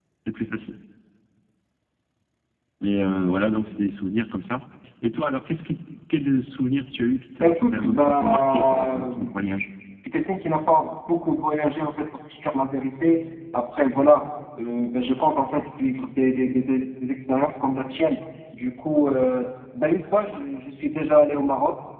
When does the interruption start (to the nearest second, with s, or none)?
7 s